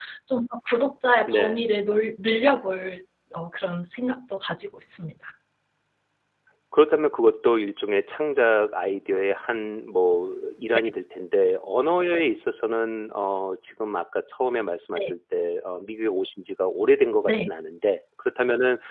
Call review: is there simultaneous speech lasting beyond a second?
No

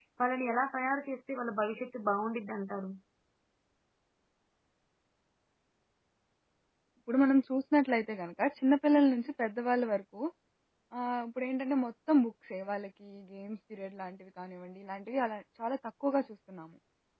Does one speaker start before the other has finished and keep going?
No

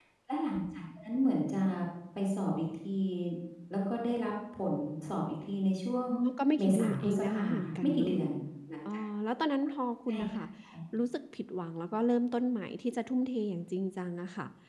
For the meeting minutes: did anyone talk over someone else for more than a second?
Yes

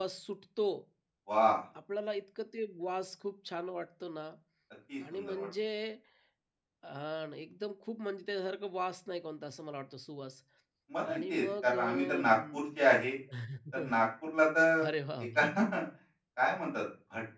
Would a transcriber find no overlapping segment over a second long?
No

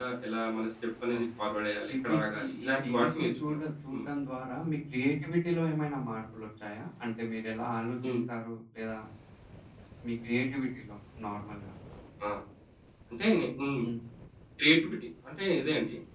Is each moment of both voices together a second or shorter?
No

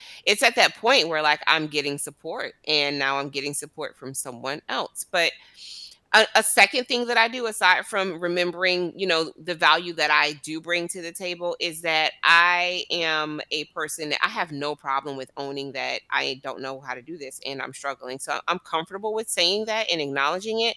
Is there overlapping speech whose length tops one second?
No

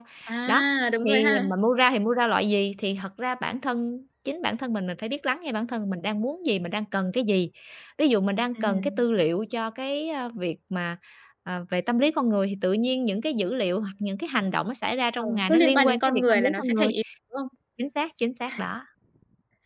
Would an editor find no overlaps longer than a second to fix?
No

